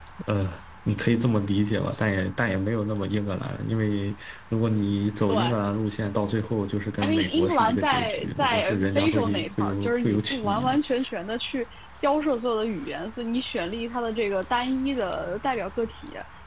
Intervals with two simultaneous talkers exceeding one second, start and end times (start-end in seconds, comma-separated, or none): 7.0-10.8